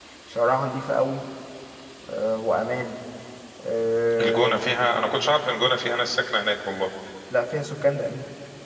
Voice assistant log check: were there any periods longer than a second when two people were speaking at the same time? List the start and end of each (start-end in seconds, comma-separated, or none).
none